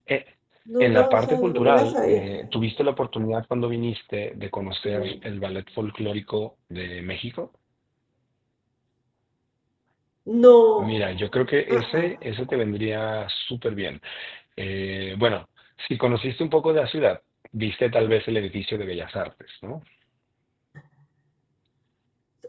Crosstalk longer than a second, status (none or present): present